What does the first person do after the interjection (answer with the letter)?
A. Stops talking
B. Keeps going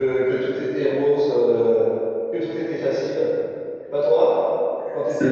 A